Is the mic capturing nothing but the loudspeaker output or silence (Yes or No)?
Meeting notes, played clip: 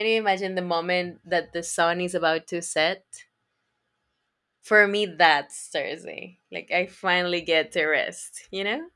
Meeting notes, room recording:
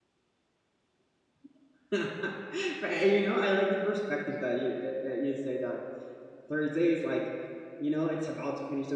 No